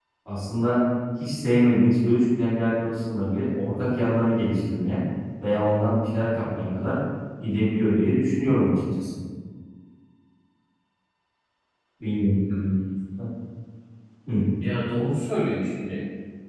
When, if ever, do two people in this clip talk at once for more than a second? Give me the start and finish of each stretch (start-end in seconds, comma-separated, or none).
none